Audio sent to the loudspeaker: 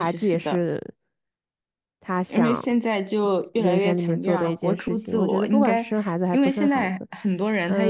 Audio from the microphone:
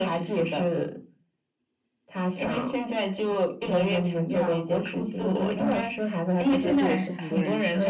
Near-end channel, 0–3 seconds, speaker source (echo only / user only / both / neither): echo only